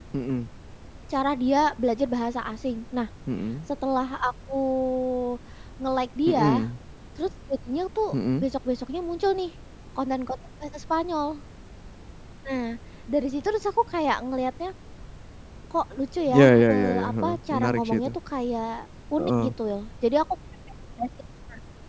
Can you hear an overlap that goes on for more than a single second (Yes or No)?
Yes